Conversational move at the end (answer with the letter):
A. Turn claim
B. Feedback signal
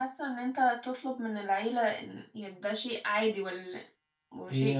A